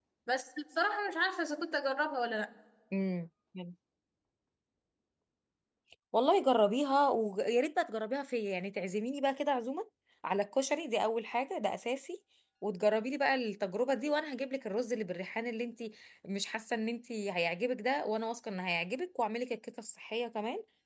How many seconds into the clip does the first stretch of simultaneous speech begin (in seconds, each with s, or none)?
none